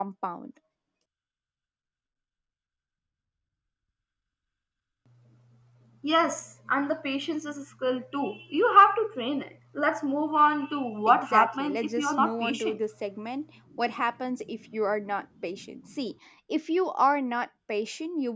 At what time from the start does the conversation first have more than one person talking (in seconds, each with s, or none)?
11.1 s